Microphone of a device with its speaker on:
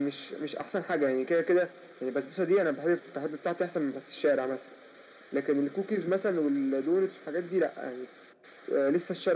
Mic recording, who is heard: echo only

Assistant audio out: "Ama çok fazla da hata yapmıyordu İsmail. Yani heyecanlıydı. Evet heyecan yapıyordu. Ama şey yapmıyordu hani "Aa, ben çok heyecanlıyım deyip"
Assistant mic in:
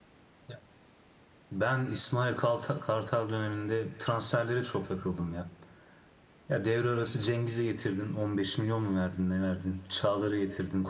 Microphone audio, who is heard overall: user only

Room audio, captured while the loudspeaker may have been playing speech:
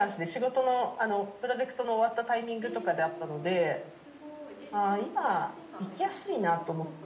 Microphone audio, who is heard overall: both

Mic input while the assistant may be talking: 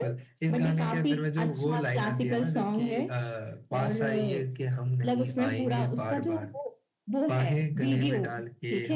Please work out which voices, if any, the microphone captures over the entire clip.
echo only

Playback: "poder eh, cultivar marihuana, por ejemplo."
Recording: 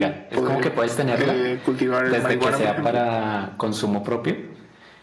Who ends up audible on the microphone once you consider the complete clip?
both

